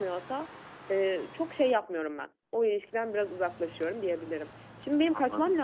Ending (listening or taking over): listening